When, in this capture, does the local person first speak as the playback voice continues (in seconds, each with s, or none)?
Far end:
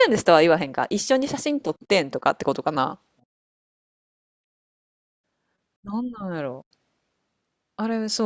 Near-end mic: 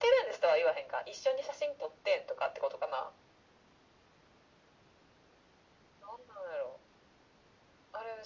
none